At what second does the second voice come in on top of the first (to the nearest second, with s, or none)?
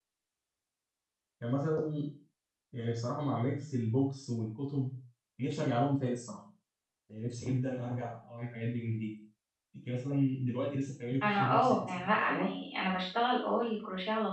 11 s